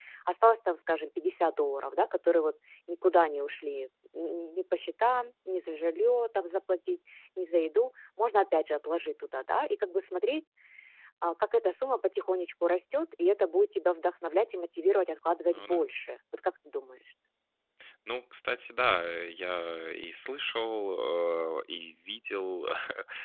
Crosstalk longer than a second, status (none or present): none